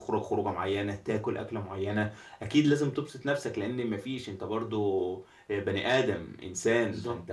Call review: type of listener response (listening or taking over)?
listening